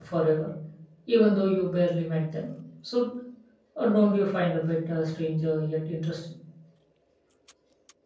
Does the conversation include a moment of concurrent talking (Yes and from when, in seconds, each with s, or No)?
No